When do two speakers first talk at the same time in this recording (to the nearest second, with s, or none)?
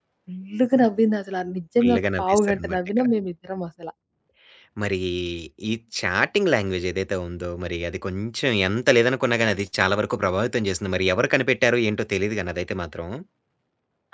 2 s